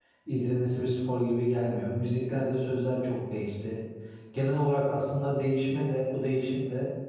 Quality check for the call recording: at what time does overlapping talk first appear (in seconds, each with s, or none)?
none